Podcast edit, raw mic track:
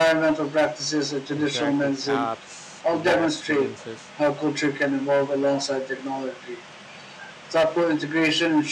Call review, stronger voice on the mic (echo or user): echo